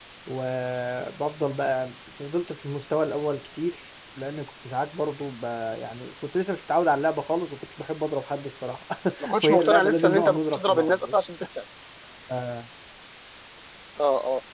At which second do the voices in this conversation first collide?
9.4 s

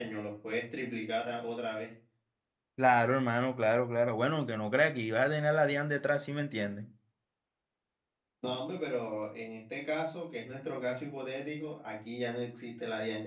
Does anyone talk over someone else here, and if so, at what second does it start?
none

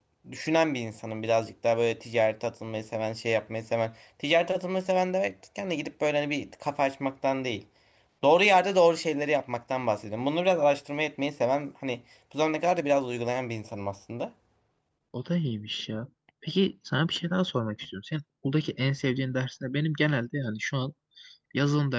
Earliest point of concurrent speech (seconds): none

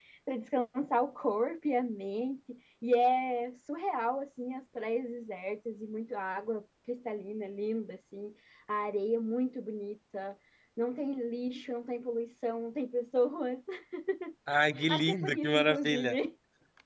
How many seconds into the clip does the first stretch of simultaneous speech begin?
14.9 s

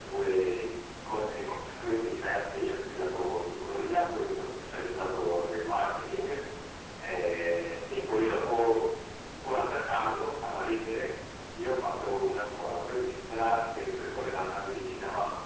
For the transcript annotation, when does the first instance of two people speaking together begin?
none

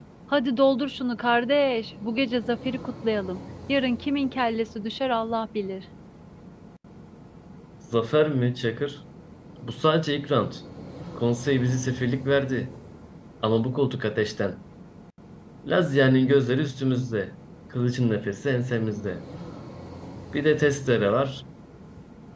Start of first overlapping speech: none

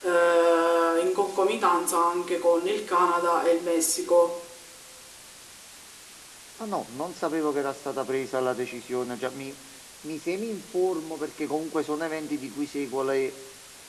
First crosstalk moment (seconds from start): none

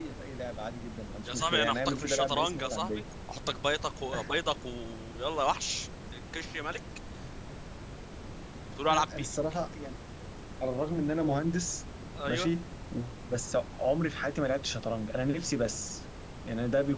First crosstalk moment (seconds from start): 1.2 s

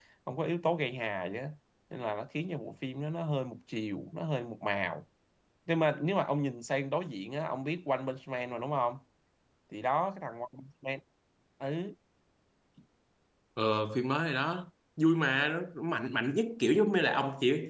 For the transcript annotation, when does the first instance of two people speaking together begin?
none

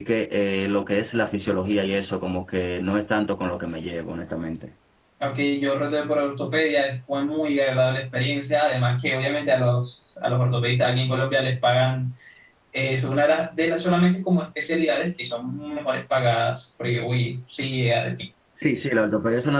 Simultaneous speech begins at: none

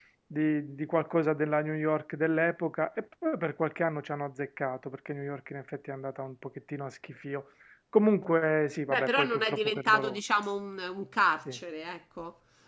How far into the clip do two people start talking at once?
8.9 s

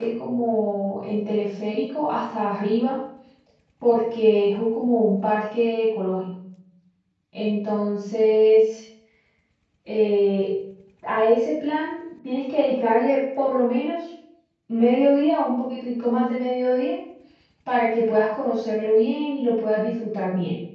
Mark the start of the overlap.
none

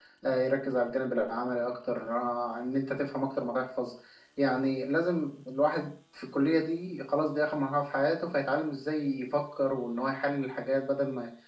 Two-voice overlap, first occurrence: none

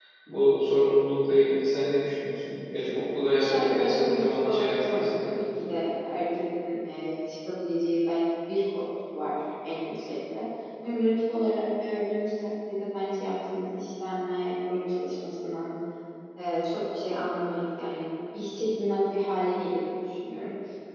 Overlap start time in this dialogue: 3.3 s

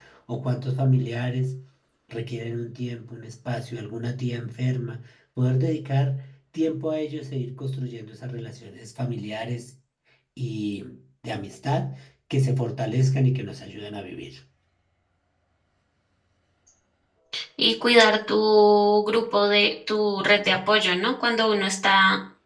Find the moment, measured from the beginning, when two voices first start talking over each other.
none

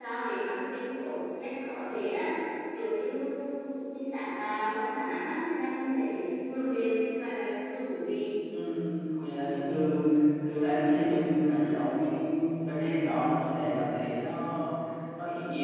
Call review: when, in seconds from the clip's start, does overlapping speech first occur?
none

